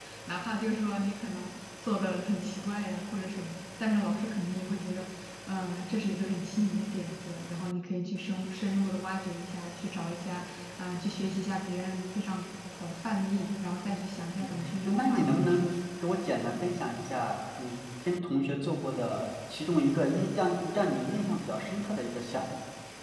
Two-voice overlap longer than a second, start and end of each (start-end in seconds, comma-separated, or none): 14.4-15.7